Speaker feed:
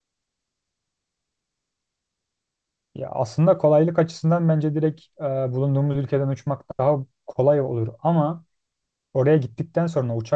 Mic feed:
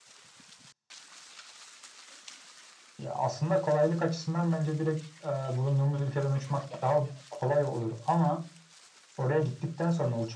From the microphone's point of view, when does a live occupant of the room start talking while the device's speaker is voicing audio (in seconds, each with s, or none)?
none